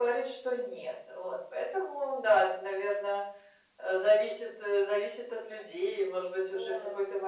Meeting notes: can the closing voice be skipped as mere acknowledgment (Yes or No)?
Yes